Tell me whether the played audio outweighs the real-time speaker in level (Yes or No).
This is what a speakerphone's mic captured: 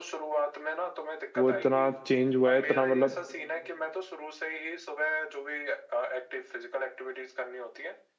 No